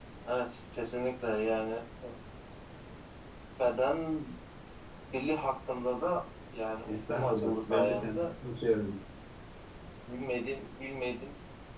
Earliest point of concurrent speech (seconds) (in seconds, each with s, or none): 6.9 s